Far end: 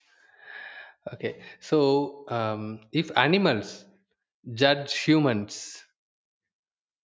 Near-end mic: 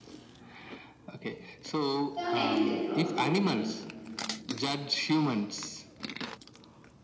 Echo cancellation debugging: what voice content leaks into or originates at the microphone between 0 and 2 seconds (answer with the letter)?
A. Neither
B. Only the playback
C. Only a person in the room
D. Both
B